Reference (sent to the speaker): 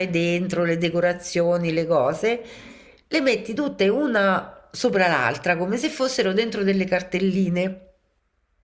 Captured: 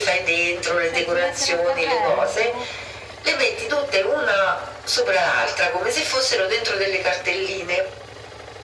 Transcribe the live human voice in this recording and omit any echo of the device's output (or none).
cioè si mette nel carrello.